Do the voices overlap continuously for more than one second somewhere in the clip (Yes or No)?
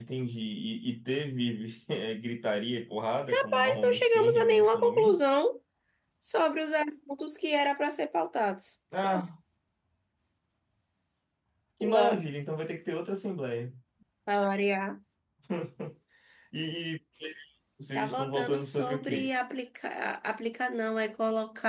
Yes